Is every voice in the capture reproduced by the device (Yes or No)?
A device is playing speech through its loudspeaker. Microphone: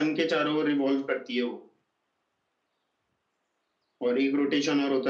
Yes